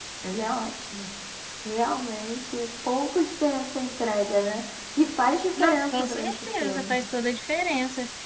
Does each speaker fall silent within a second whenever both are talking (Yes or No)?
No